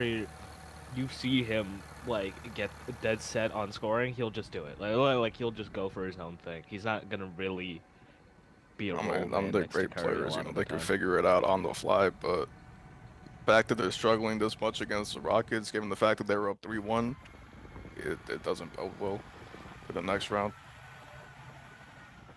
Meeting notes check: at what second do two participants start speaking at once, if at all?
8.9 s

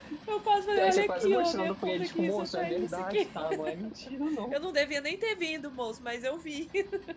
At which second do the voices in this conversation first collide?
0.8 s

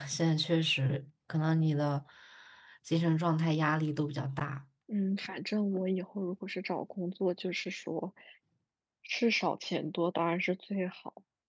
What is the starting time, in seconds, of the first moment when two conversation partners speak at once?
none

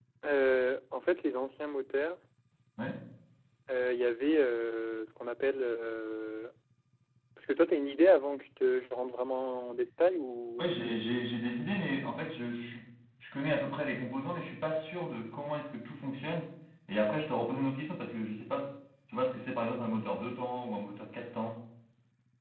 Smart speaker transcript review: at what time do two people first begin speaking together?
none

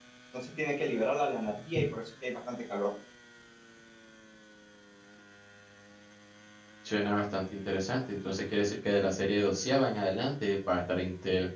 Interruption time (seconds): none

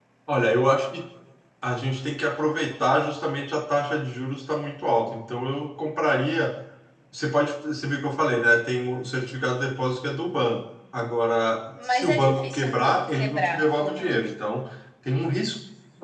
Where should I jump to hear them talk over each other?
11.8 s

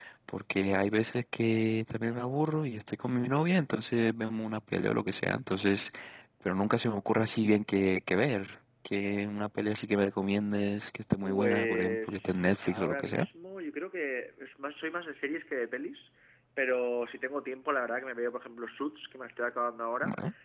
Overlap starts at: 11.2 s

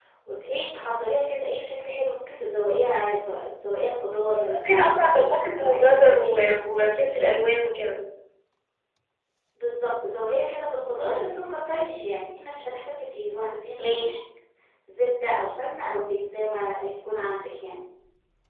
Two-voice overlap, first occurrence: 4.7 s

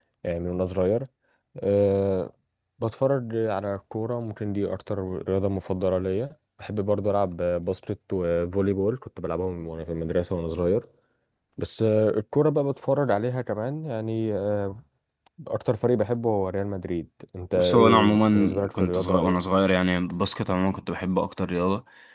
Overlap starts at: 17.5 s

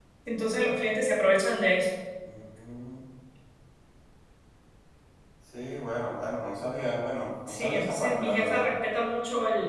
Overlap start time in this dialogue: 7.5 s

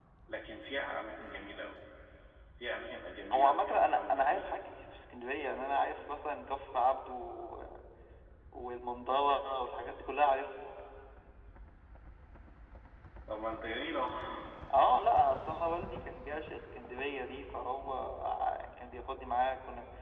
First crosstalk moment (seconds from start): 3.3 s

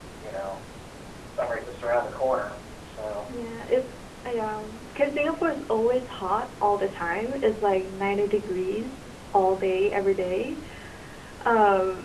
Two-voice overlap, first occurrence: none

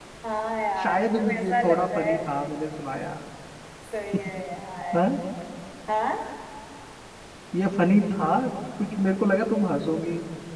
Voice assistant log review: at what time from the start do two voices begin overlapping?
0.8 s

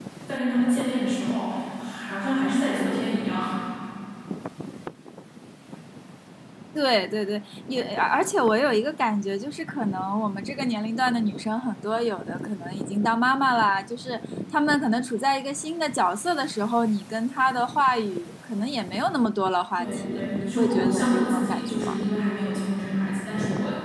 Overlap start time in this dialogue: 19.8 s

